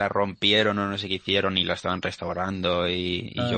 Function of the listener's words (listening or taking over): listening